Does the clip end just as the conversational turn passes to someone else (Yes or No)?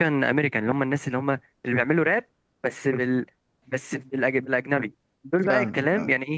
No